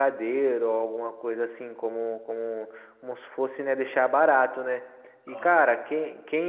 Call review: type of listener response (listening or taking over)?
listening